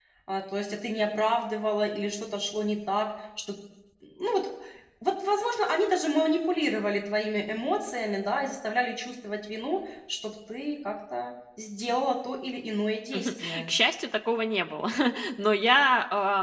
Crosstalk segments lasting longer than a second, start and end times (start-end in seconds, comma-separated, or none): none